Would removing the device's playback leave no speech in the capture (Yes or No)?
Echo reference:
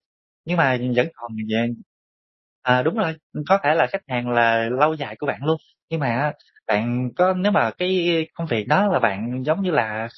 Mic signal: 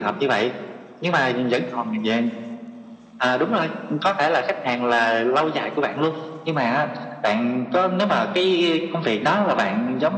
Yes